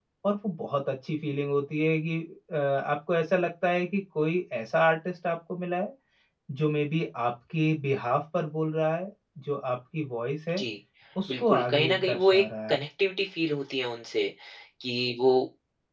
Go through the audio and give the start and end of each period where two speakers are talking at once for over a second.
11.3-12.8

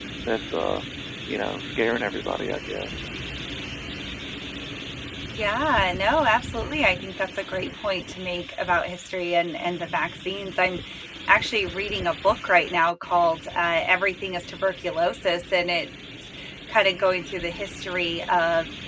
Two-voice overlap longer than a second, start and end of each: none

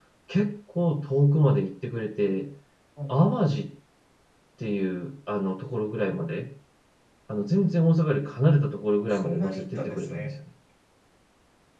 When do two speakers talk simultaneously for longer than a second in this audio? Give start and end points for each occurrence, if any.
8.9-10.3

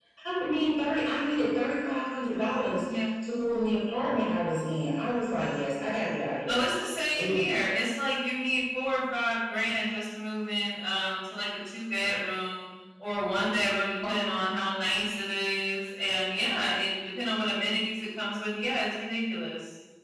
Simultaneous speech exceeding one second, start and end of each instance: none

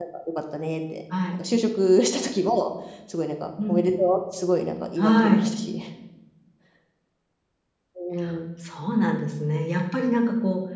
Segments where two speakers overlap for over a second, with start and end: none

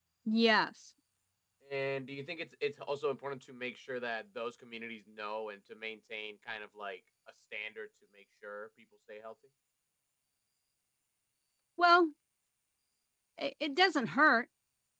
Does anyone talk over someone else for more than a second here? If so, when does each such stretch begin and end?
none

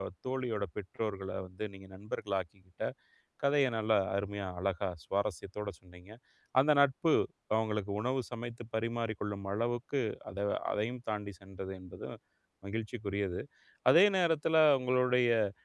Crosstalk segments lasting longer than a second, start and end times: none

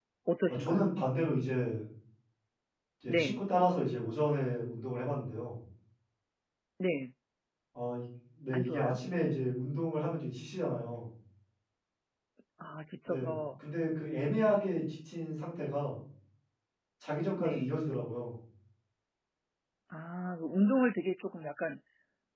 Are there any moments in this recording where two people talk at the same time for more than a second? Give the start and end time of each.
none

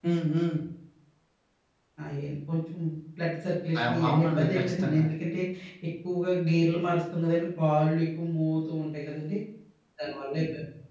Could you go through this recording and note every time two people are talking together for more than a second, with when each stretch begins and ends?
3.8-5.0

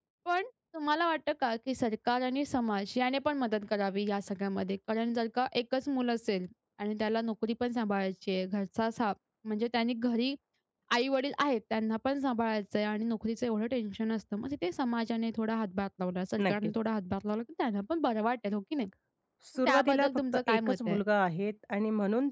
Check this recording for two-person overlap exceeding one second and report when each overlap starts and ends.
19.6-21.0

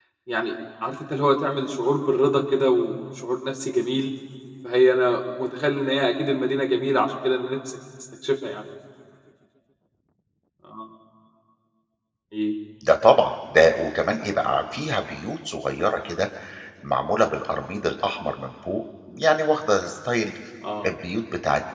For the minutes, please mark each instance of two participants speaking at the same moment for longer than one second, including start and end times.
none

